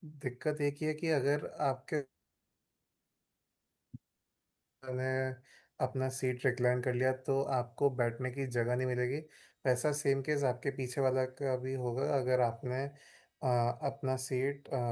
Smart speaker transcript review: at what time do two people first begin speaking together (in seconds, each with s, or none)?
none